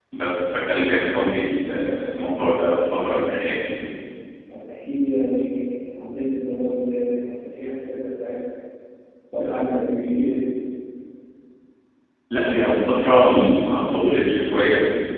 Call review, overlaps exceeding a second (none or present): none